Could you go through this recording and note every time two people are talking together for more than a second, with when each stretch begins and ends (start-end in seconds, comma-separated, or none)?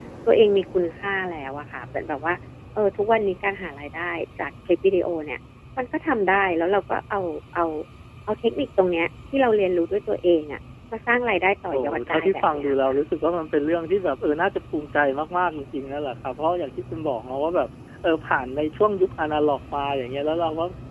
11.7-13.0